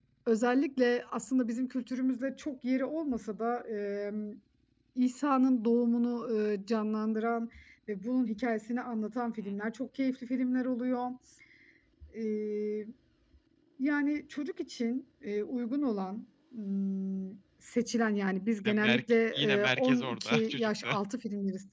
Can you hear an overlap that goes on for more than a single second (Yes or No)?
Yes